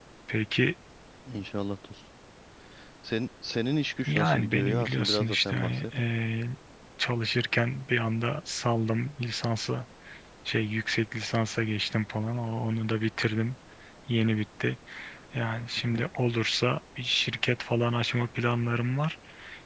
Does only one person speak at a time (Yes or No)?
No